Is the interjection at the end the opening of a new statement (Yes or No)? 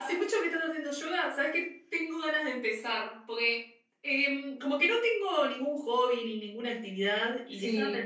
No